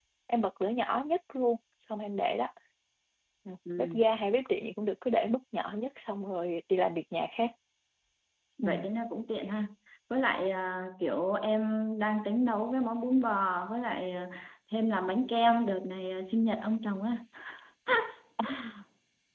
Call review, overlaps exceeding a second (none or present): none